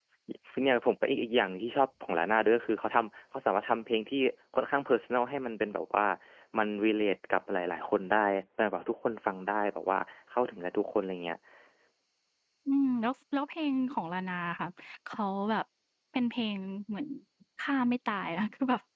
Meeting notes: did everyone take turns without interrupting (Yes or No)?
Yes